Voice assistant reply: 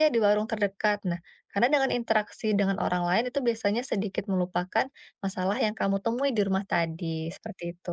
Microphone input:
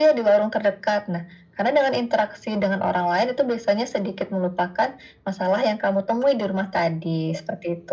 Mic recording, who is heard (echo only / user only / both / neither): echo only